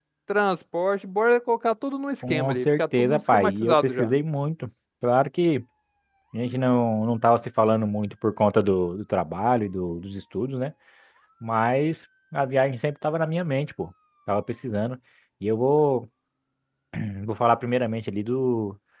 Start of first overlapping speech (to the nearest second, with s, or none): 2 s